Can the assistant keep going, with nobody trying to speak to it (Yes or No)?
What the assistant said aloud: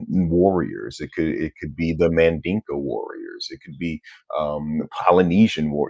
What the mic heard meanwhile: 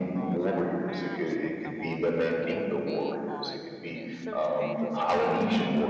No